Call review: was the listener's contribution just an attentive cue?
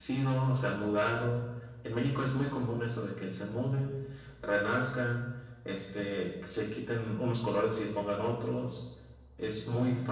Yes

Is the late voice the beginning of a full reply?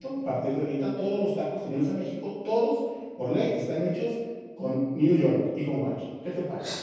Yes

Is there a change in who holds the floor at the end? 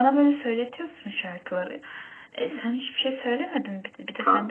Yes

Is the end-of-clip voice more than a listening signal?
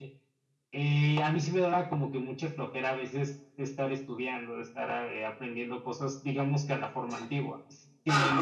No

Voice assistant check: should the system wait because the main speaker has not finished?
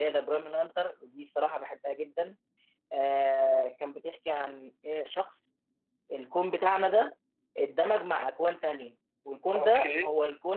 Yes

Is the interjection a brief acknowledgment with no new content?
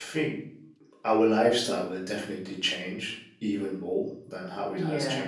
Yes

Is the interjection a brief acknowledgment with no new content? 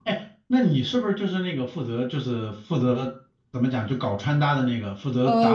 No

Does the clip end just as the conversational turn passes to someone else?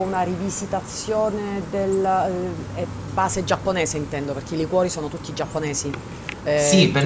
Yes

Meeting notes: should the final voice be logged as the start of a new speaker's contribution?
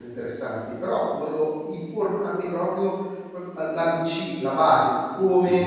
No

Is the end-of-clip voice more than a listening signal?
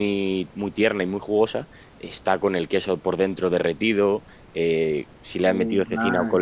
No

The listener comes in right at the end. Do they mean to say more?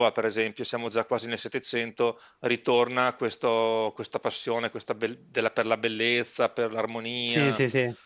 Yes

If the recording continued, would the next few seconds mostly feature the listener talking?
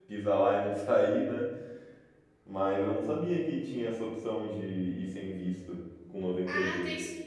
Yes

